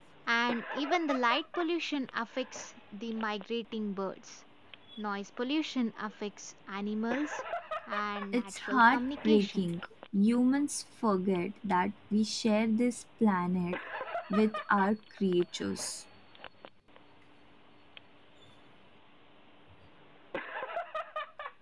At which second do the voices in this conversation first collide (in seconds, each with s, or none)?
8.3 s